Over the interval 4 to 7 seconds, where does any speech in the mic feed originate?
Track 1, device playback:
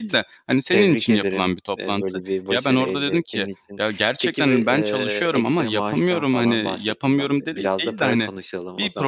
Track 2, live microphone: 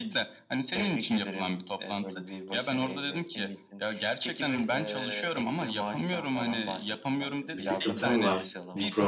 echo only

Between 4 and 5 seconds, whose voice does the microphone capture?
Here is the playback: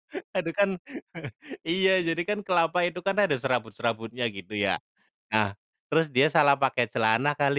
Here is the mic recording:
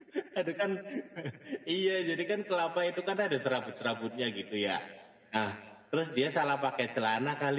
echo only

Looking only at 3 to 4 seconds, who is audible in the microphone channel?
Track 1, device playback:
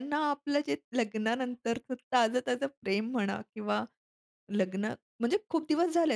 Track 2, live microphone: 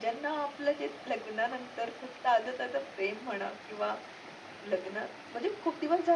echo only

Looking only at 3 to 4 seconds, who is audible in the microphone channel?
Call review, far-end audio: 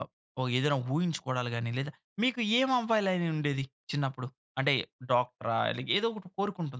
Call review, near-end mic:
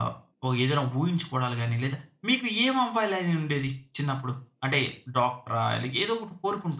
echo only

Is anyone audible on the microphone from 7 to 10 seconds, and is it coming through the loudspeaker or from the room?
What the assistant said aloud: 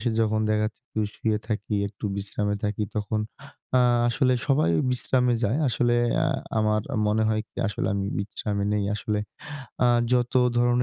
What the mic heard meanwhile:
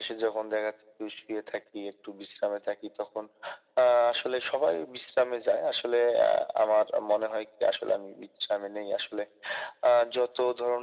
echo only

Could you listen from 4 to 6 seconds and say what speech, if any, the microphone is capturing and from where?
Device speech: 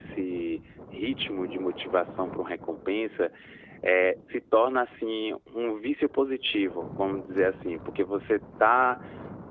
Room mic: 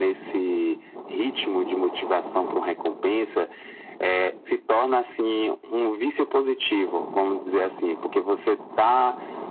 echo only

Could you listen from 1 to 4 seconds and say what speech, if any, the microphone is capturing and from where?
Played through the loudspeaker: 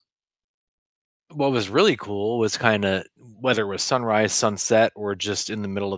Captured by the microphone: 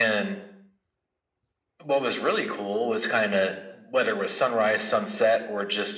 echo only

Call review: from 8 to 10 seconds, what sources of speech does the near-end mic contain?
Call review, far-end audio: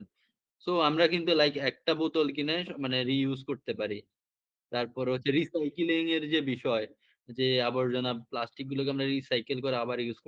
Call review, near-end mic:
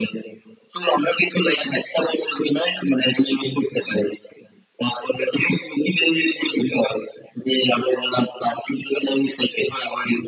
echo only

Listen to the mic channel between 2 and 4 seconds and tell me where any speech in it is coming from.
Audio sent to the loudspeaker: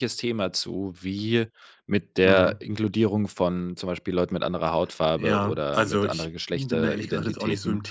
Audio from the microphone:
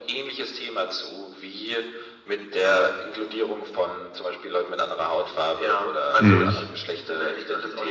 echo only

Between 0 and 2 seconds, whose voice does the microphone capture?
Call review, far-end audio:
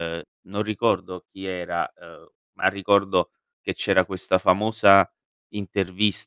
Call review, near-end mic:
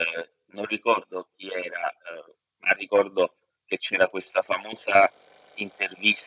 echo only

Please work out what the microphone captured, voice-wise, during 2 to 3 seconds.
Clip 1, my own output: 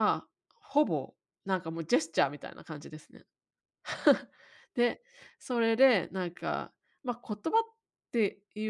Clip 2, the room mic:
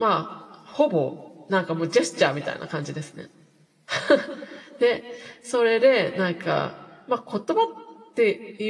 echo only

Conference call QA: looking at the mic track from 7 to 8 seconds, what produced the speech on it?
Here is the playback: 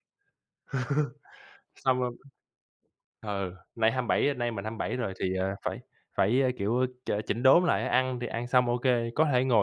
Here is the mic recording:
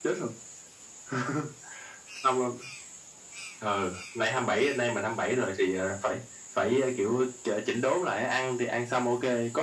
echo only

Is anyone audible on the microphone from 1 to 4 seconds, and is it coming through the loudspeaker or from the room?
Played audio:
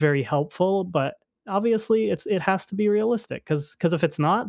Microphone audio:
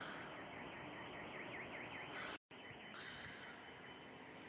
neither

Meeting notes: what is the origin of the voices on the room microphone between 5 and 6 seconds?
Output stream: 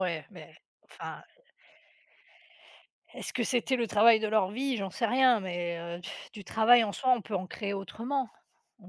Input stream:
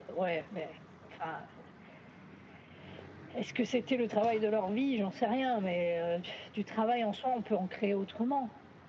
echo only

